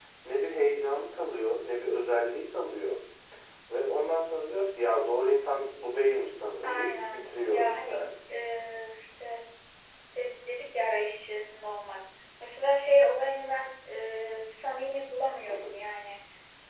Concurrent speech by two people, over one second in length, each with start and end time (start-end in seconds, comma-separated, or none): 6.6-8.1